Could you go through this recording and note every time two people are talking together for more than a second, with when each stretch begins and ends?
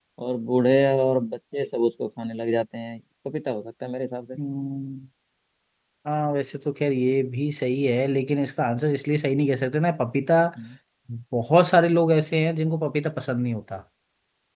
none

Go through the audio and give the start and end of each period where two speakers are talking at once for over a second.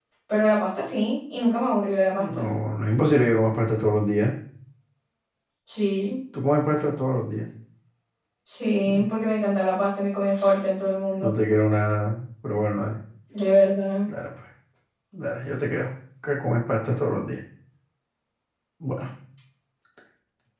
none

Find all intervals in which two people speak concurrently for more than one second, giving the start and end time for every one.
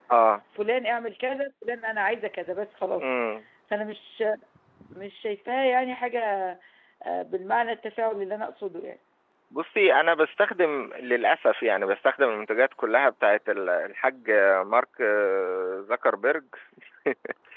none

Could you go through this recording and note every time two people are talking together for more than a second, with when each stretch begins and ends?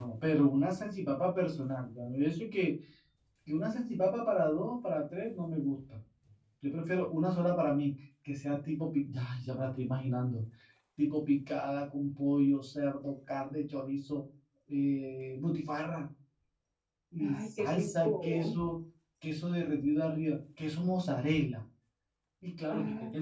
17.2-18.5

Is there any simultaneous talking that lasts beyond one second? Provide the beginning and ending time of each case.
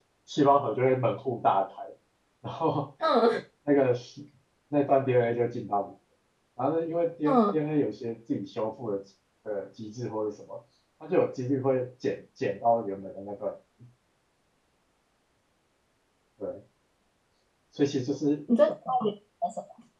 none

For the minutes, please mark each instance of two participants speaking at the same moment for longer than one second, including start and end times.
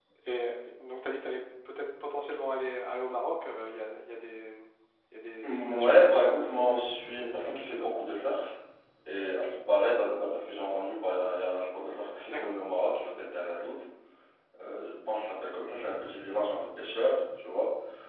5.4-7.9

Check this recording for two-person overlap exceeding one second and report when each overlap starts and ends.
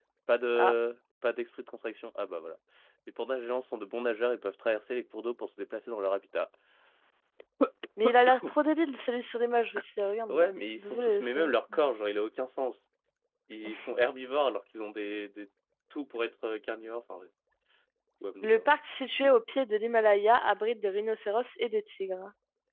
10.3-11.5

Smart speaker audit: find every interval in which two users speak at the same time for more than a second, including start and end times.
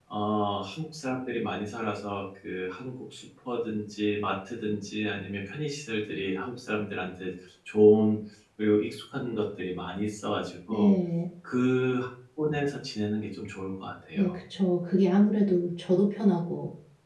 none

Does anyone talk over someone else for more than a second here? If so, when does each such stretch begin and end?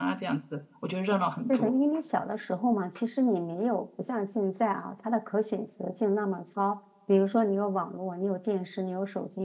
none

